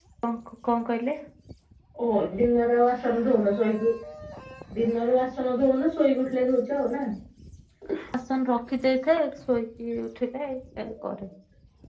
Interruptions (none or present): none